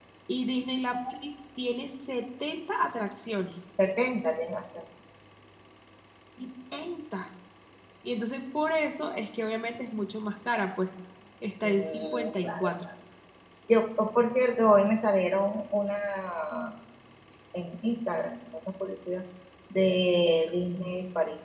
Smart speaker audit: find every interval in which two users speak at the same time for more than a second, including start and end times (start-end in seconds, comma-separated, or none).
11.6-12.8